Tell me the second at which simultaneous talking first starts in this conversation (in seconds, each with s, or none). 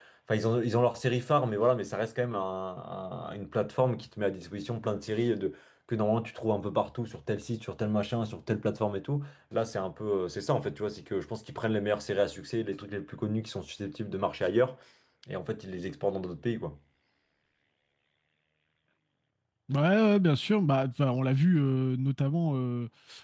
none